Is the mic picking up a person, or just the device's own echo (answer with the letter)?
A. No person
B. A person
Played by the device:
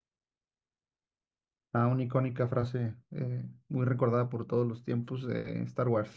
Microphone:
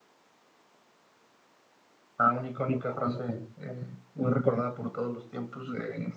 A